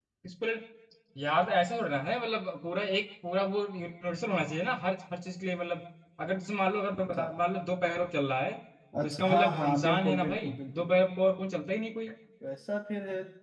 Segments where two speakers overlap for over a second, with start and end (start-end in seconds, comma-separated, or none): 9.0-10.9